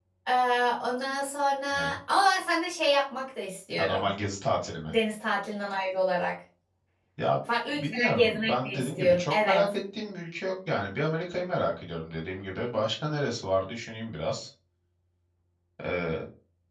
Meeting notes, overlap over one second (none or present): present